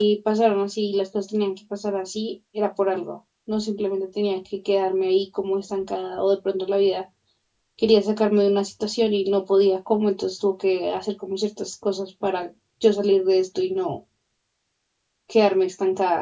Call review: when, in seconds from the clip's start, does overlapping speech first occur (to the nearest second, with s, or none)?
none